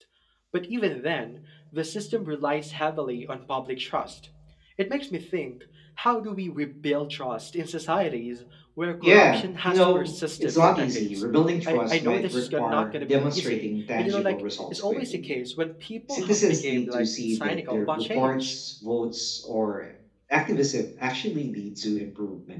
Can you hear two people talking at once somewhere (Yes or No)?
Yes